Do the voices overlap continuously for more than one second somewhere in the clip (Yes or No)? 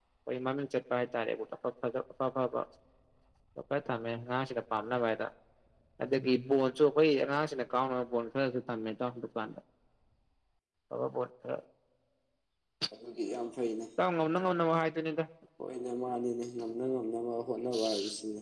No